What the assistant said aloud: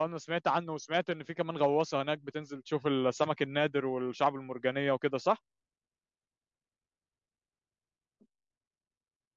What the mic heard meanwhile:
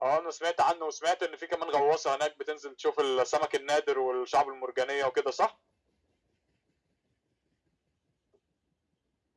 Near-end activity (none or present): none